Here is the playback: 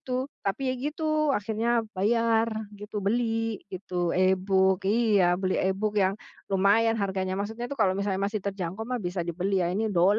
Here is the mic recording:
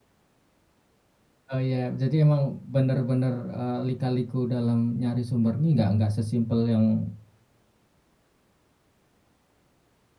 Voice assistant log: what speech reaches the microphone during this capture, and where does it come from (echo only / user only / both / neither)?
user only